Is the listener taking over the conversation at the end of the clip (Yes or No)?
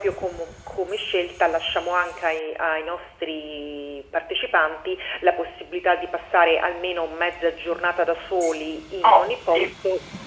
Yes